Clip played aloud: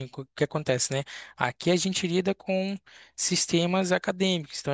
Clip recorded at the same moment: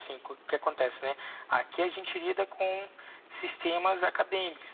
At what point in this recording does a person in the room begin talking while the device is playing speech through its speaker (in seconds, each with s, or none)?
none